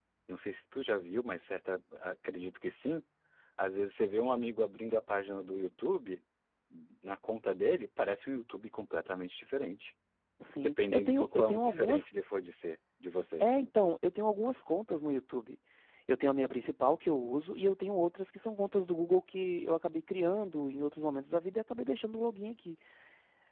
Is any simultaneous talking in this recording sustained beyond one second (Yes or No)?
Yes